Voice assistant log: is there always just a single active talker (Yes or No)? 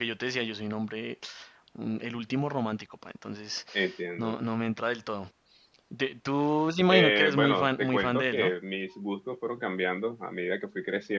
No